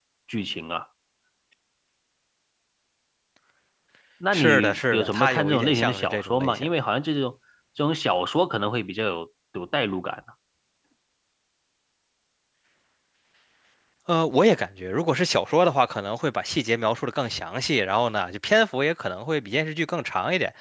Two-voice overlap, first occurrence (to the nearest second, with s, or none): 4 s